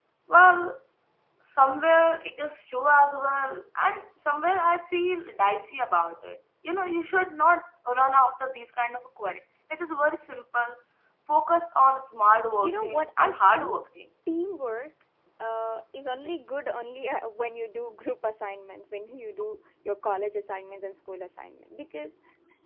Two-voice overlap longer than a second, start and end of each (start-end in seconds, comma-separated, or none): 12.6-13.8